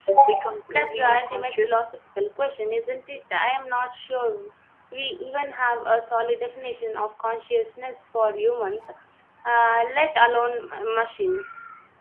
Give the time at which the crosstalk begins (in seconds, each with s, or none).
0.7 s